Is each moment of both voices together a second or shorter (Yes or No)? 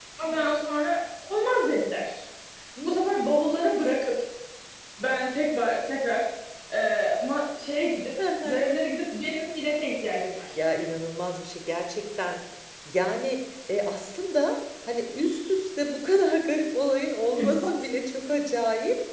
Yes